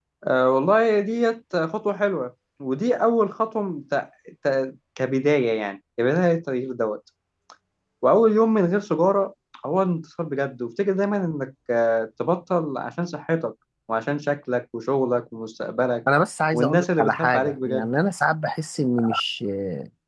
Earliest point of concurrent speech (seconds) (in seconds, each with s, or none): 16.5 s